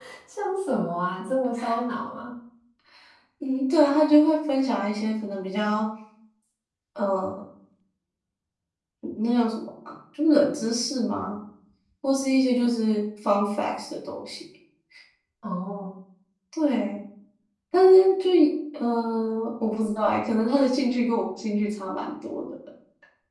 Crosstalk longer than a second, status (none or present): none